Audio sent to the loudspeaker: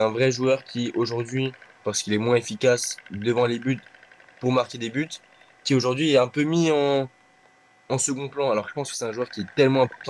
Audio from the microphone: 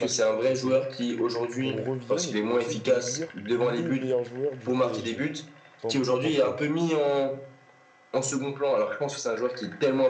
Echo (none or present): present